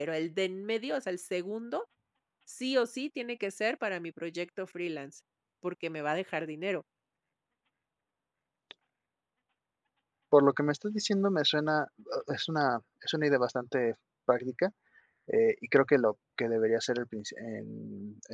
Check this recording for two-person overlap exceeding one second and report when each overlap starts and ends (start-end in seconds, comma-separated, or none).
none